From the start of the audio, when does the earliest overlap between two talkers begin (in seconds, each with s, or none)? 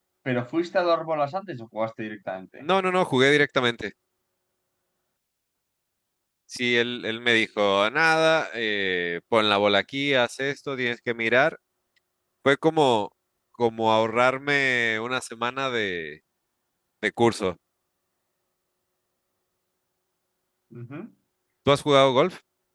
none